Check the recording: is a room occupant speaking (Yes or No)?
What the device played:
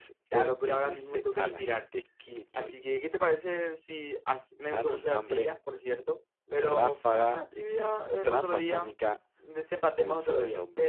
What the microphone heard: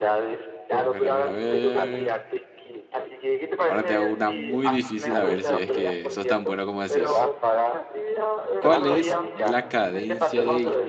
Yes